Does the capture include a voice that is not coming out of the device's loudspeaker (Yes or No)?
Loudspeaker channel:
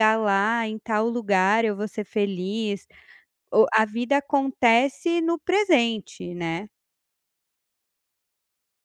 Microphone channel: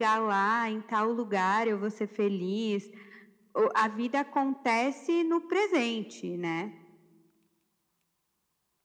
No